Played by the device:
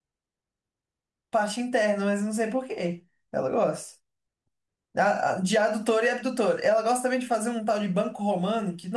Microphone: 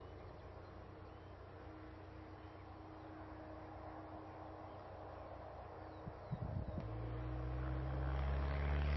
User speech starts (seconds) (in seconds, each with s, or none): none